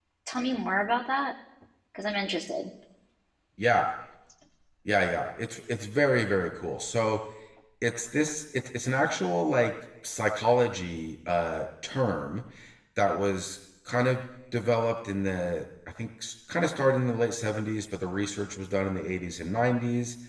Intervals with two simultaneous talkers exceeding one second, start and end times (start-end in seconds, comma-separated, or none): none